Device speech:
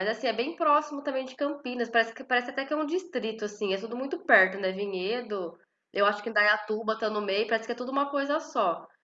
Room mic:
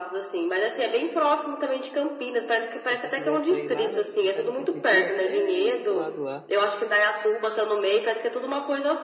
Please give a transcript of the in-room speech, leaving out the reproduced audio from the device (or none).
Se você quiser sair lá, você sai da prefeitura até o outro lado lá